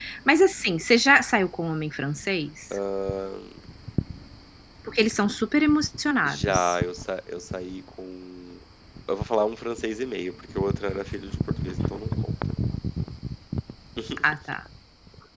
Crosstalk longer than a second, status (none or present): none